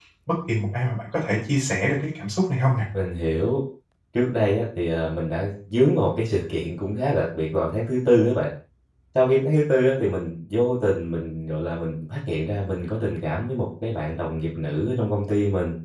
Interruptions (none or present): none